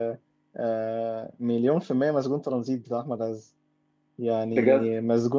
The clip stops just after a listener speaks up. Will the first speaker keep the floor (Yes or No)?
Yes